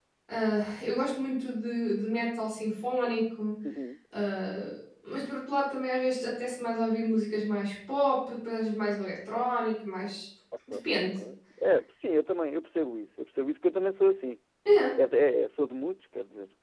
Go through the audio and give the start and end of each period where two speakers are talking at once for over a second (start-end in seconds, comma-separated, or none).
none